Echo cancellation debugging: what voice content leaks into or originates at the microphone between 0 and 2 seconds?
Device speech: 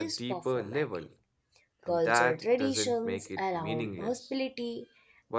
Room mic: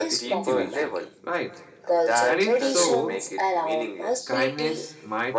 both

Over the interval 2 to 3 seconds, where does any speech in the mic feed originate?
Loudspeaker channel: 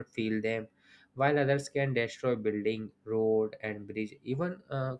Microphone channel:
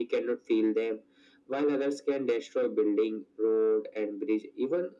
echo only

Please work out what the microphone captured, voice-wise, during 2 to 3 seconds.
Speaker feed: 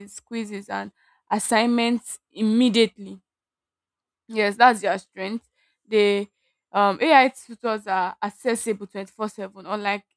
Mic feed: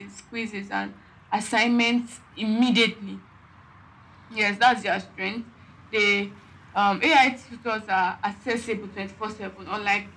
echo only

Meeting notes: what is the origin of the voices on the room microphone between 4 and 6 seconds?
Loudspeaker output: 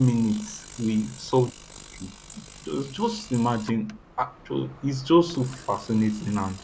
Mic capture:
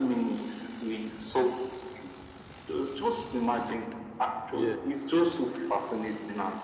both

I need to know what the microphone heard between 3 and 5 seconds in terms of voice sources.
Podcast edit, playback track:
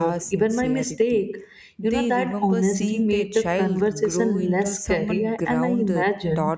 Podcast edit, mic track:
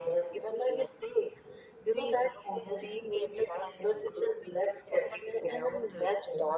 echo only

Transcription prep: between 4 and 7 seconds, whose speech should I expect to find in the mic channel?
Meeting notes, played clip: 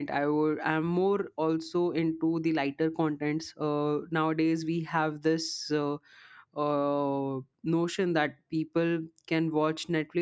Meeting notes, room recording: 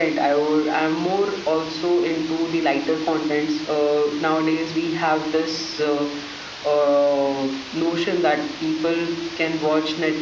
echo only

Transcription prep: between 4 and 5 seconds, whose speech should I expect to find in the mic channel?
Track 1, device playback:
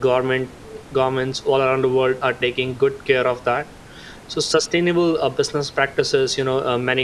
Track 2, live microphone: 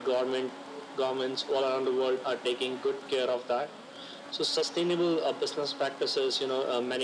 echo only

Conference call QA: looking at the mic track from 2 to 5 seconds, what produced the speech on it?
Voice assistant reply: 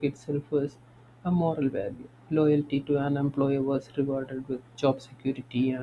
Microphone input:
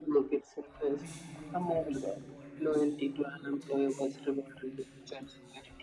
both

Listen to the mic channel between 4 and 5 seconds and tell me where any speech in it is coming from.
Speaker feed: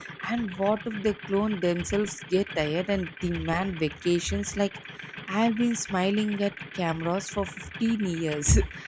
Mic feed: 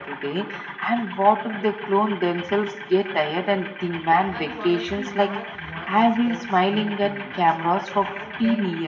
both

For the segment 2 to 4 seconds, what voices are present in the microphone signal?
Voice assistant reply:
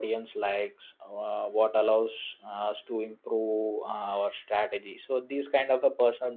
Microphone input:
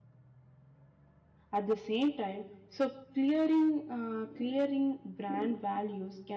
user only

